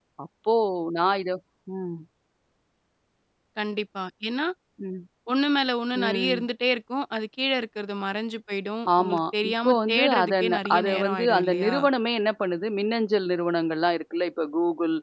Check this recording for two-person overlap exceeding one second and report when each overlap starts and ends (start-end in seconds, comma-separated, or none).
9.0-11.8